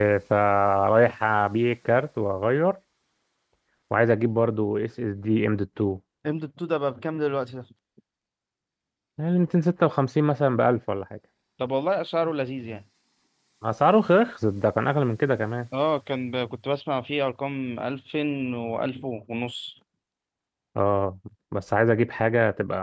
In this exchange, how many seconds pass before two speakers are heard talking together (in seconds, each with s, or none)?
none